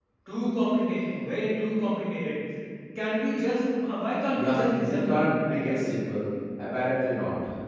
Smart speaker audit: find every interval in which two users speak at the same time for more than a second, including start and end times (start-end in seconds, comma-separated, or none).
4.3-5.8